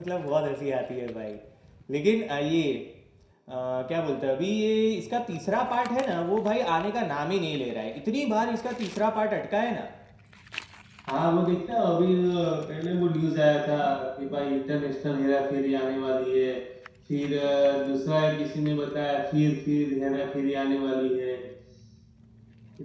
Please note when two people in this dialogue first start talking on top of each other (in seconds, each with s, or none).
none